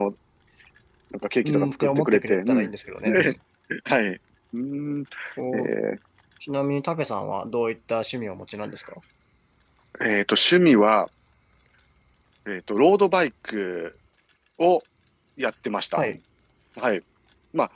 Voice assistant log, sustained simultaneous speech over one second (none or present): present